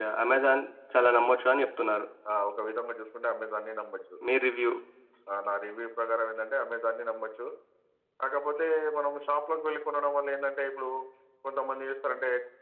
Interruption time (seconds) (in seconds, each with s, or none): none